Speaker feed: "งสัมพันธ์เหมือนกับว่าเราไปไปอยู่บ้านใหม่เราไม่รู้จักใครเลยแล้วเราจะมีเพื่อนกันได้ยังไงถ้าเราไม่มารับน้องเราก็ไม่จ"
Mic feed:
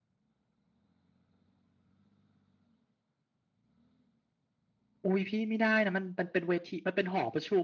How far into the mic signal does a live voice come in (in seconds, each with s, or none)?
5.0 s